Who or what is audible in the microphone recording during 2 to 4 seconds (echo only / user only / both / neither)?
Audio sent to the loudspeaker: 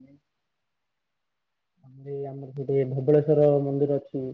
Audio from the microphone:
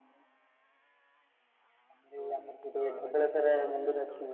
both